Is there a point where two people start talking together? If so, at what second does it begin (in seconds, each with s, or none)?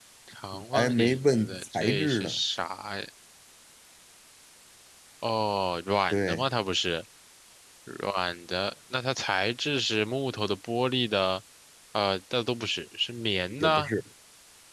0.7 s